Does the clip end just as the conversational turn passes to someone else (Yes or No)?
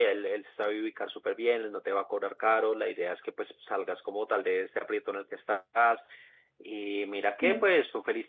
No